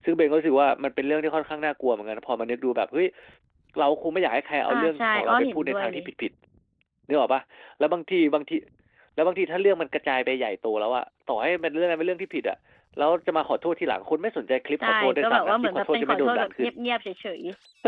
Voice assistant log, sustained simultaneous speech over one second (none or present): present